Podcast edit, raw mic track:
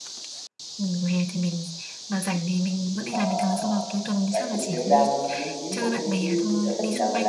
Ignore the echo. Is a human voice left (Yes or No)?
Yes